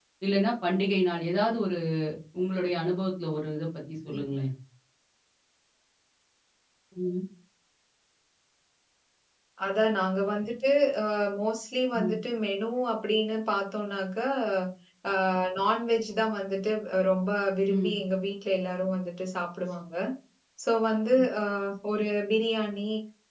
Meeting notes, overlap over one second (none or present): none